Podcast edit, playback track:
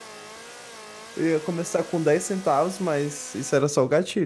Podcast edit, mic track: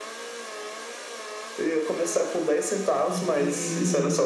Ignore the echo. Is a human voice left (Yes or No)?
Yes